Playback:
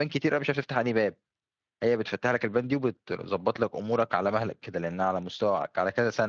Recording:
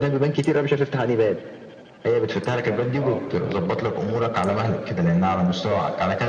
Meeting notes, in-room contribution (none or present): present